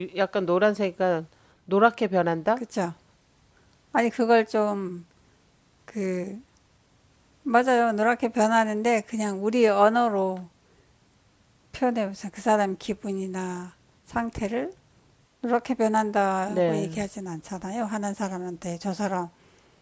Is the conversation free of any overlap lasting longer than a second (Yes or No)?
Yes